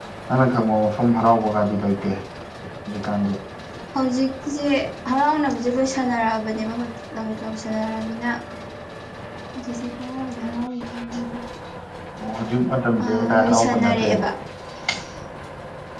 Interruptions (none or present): present